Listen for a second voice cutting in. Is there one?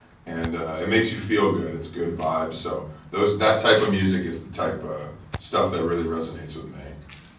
No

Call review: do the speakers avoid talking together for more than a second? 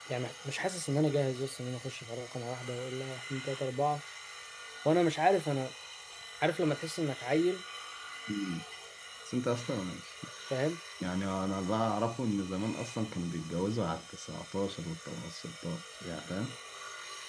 Yes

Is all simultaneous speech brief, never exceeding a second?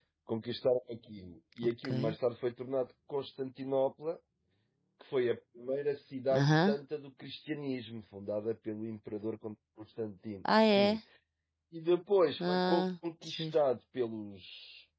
Yes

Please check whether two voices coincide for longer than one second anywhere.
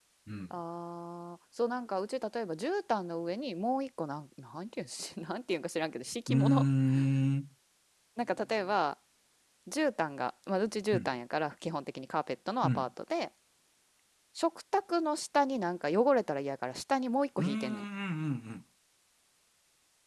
No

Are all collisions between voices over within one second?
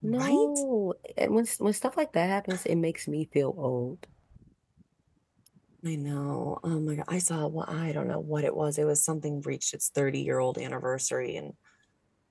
Yes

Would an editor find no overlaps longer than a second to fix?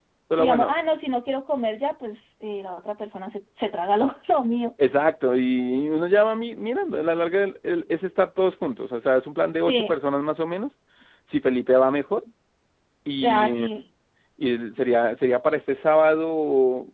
Yes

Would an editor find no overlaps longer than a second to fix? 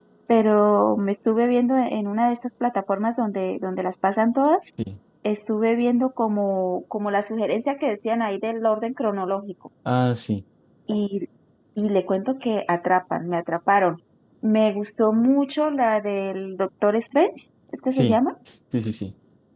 Yes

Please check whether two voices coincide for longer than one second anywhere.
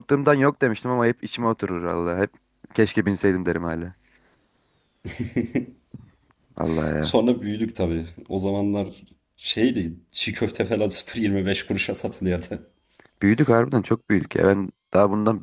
No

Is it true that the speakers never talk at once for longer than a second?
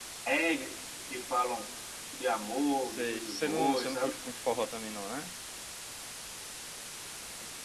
No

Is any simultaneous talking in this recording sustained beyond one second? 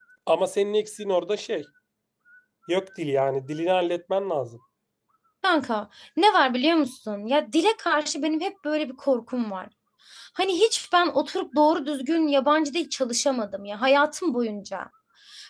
No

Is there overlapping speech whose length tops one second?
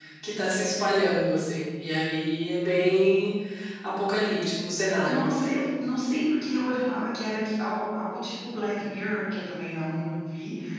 No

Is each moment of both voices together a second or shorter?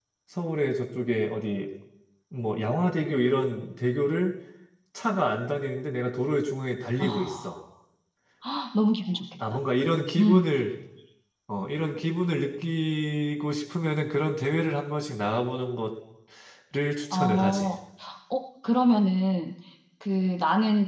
Yes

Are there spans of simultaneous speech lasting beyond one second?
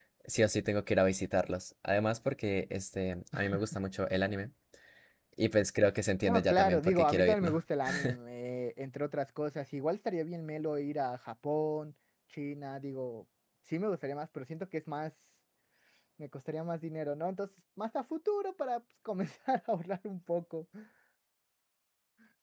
Yes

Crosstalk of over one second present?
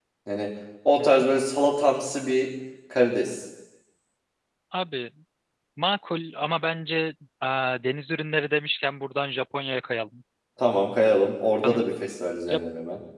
No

